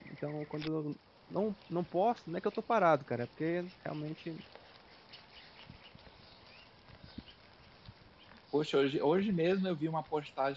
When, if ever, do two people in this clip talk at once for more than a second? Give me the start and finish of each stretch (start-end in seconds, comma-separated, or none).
none